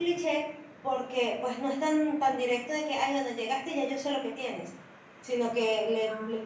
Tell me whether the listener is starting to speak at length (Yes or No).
No